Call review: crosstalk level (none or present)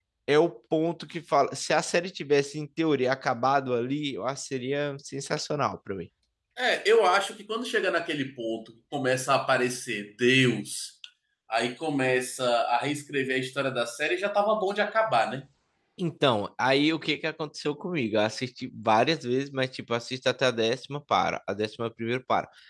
none